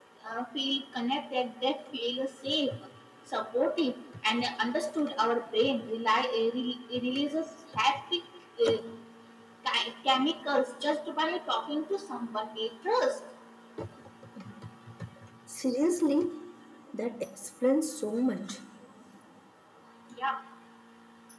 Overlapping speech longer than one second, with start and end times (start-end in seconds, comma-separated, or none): none